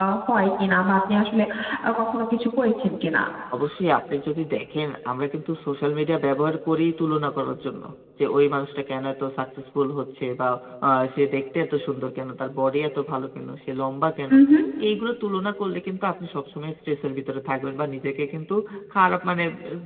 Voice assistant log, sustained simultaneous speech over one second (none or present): none